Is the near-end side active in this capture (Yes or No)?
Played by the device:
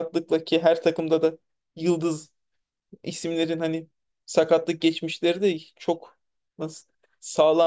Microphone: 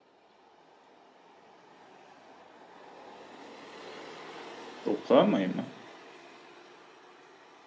Yes